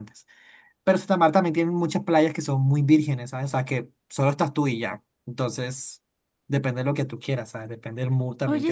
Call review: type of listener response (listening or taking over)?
taking over